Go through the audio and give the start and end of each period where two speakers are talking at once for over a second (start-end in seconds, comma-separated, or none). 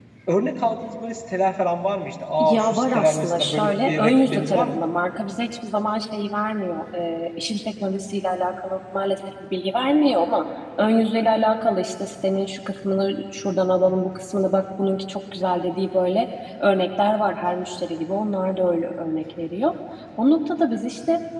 2.4-4.8